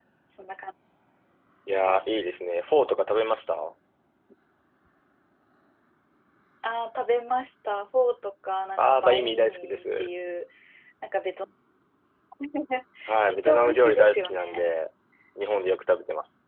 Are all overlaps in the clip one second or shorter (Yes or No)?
No